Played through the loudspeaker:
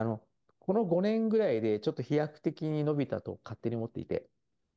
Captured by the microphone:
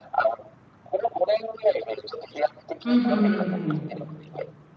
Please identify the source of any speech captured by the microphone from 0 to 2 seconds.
echo only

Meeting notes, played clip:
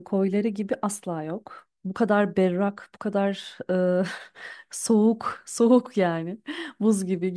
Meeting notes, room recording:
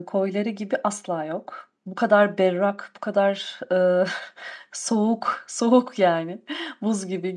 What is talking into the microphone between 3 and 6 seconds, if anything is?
echo only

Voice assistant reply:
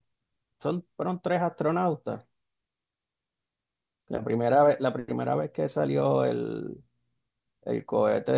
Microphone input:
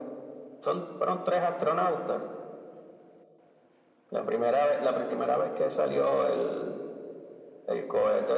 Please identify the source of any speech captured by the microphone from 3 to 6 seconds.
echo only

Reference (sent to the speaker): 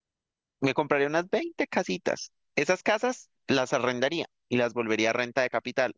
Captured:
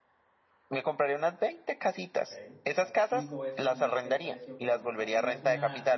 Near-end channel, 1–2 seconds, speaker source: echo only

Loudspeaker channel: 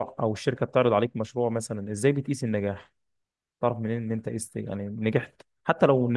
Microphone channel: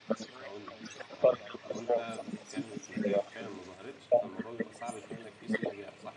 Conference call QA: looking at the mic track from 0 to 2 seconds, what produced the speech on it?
both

